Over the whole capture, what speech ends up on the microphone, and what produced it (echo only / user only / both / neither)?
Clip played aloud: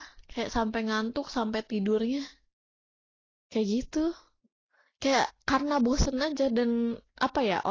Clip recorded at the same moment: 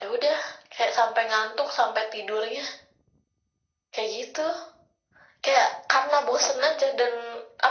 echo only